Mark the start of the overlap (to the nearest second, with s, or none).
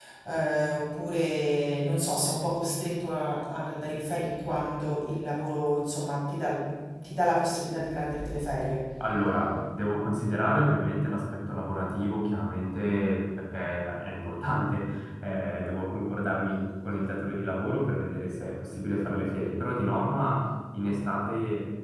none